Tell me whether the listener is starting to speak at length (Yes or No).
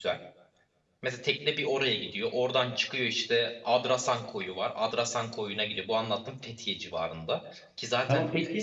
Yes